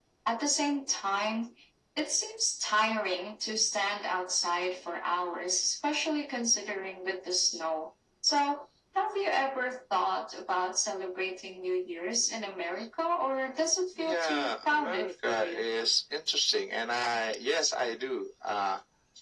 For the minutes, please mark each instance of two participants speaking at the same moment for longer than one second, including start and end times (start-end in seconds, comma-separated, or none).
14.0-15.6